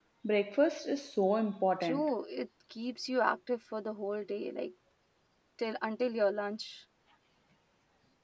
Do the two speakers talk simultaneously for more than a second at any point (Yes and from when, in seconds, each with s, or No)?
No